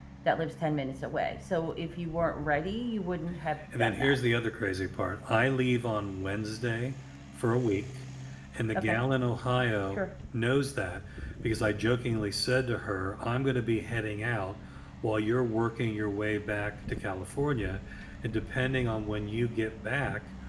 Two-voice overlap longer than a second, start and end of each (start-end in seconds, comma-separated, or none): none